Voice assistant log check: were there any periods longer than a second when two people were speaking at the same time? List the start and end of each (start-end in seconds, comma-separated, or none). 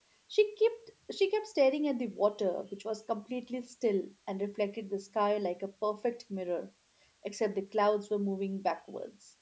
none